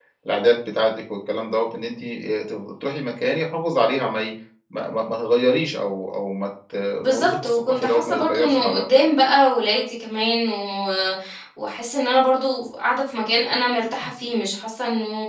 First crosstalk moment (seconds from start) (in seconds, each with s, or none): 7.0 s